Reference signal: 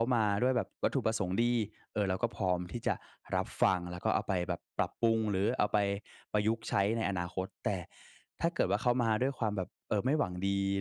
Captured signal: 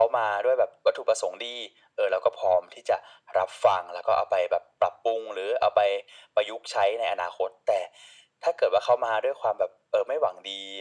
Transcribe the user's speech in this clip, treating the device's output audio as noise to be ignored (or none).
none